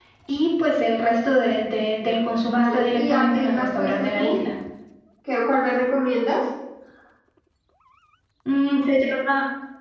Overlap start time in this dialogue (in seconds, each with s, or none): 2.4 s